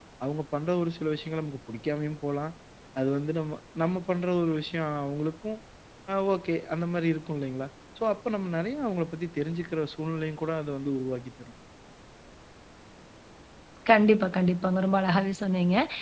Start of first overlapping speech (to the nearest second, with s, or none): none